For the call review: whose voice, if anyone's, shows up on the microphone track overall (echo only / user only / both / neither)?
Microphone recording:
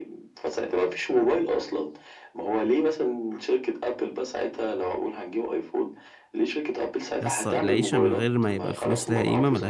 both